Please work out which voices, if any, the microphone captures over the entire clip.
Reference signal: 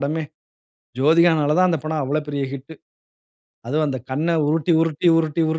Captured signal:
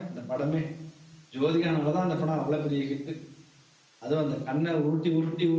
echo only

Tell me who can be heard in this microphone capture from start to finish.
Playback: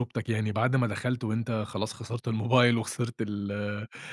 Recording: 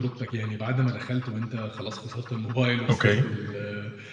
both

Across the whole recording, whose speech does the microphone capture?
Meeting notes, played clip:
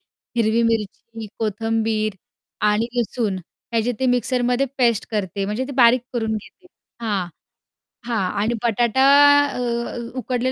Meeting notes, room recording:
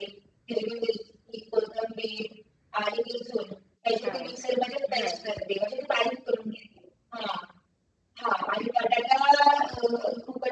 both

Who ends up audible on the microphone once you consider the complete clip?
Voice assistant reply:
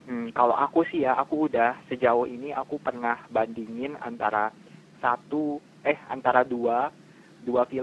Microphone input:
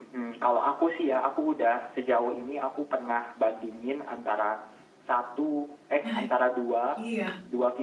both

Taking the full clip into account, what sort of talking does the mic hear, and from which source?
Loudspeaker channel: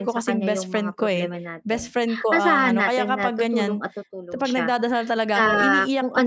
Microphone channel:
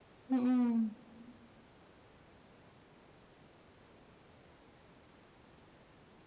user only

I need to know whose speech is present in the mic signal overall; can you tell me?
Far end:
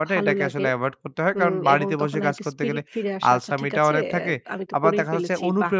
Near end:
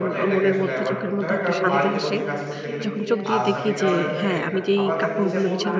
both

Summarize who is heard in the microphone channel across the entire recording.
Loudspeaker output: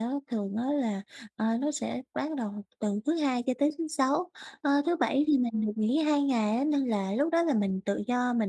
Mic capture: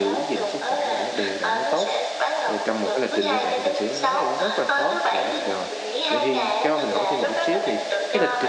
both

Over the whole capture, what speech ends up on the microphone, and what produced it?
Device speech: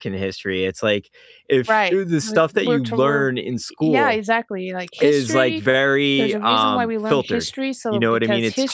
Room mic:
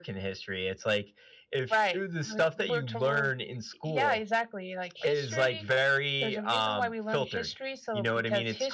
echo only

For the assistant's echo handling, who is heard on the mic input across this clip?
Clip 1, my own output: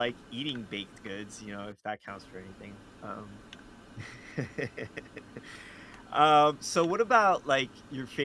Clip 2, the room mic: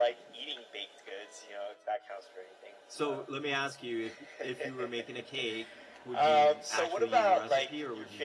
both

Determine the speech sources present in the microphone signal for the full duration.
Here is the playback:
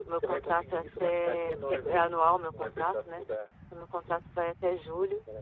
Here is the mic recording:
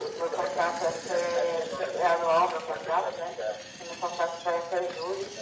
echo only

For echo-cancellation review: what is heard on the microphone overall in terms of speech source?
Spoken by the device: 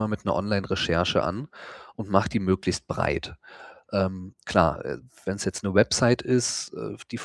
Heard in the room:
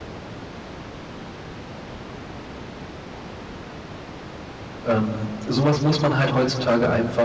user only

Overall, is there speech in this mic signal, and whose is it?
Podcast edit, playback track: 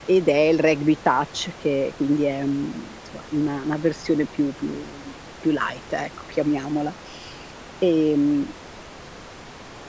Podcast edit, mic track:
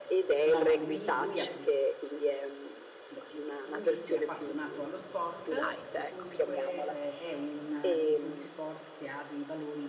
both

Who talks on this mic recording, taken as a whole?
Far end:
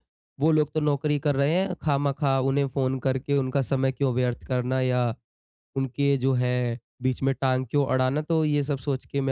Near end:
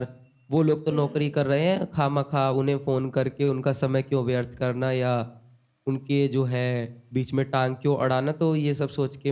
both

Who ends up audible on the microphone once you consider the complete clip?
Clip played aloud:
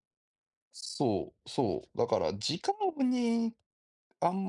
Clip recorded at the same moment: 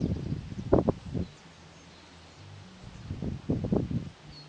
neither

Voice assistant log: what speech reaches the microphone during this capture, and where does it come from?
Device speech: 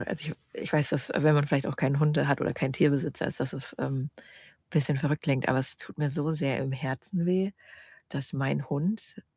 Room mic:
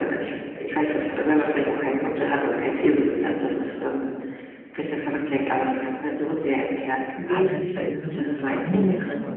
both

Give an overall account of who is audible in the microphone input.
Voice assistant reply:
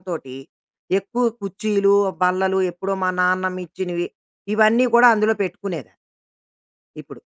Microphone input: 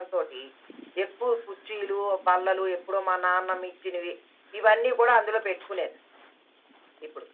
echo only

